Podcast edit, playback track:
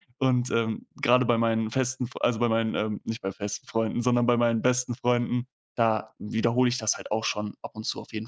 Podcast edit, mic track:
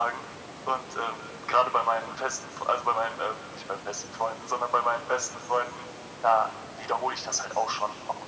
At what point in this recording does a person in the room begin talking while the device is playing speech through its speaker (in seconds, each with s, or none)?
none